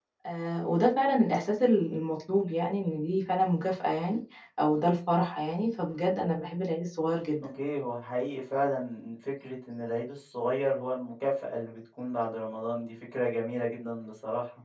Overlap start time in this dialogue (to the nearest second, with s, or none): none